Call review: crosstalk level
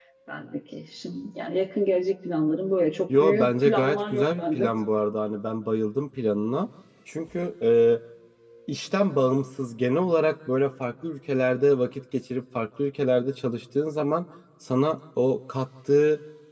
present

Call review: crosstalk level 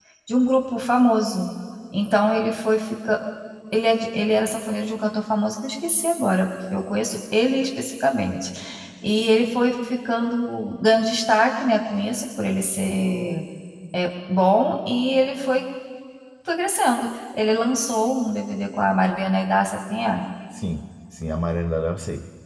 none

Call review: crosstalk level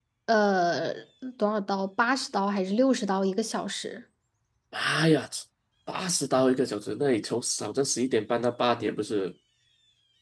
none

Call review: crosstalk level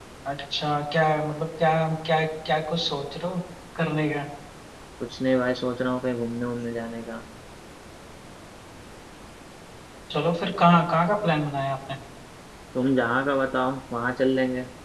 none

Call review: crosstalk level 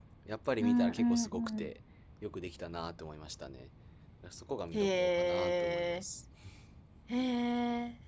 present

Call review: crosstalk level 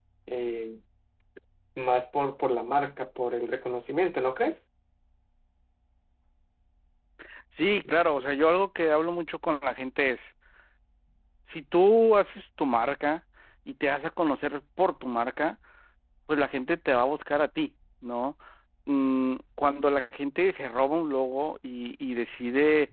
none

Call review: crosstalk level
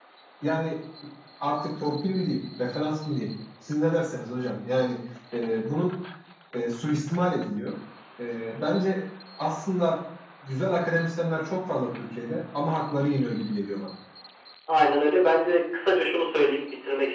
none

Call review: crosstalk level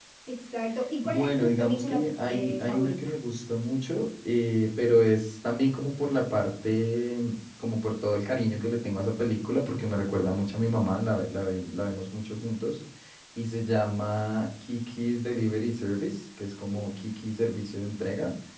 present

